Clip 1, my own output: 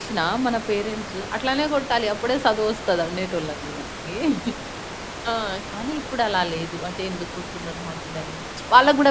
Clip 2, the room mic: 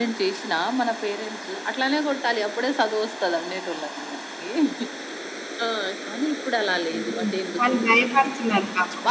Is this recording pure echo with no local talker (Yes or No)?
No